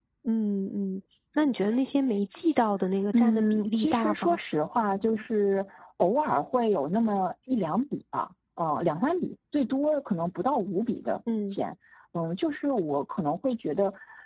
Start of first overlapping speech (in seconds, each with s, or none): 3.1 s